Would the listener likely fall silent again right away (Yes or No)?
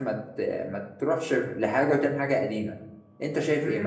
No